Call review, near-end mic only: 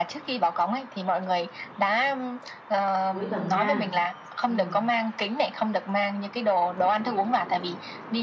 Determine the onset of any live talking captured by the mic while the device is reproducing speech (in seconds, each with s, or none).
3.0 s